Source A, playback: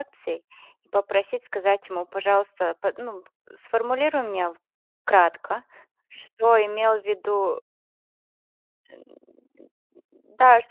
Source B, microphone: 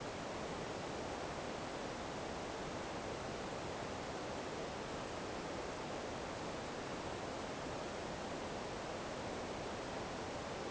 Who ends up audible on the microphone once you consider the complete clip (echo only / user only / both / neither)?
neither